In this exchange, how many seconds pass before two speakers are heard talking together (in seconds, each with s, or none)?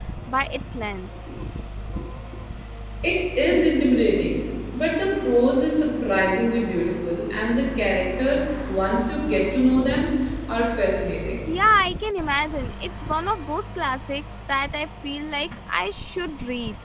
none